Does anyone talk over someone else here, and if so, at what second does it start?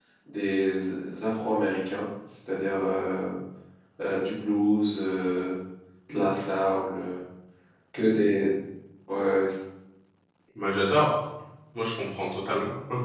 none

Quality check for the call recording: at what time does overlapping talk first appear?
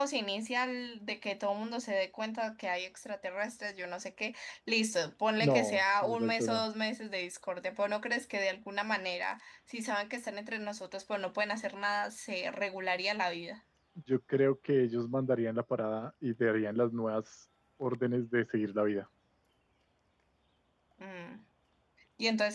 5.4 s

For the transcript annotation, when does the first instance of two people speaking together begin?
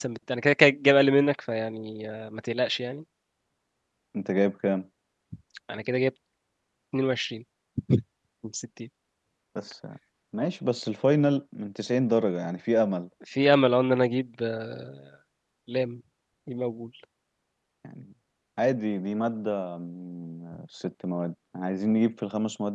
none

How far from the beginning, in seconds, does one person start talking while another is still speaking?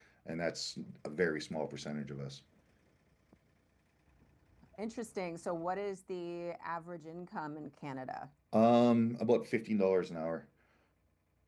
none

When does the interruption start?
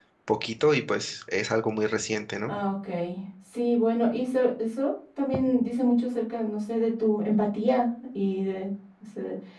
none

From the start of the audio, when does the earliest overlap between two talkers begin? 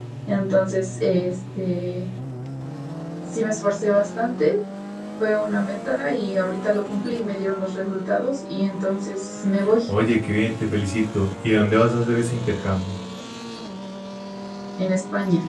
none

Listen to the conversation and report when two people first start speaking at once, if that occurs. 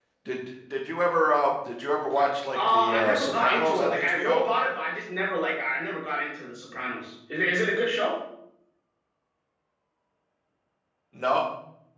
2.5 s

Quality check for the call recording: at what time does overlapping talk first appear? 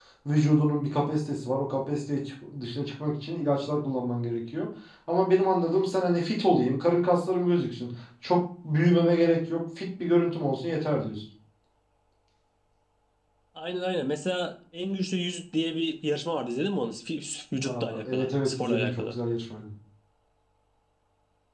17.6 s

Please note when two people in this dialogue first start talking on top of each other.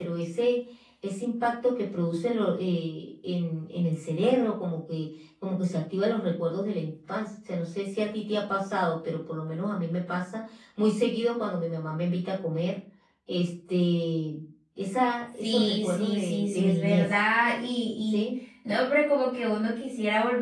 15.4 s

